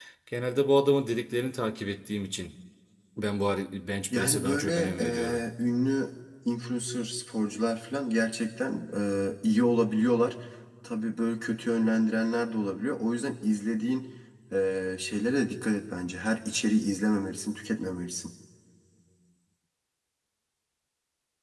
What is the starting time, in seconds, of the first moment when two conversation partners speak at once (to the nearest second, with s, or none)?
4 s